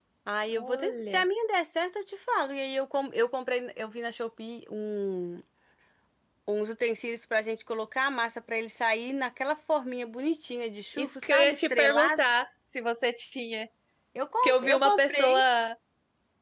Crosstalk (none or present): present